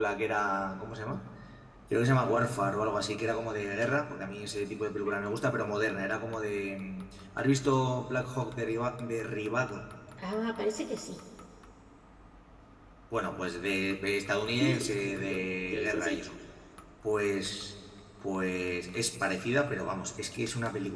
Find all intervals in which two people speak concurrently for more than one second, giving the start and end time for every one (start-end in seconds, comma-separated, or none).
14.6-16.2